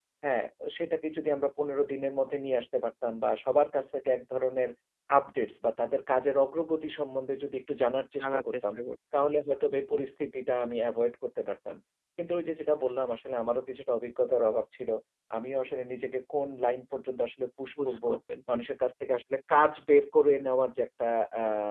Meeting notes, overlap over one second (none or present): none